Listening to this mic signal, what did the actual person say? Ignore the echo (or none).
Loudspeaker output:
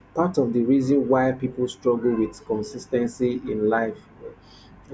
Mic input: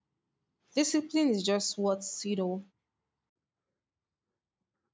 Discipline is just what you know